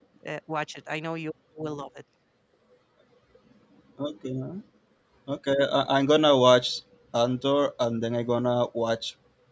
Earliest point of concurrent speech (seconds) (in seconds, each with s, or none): none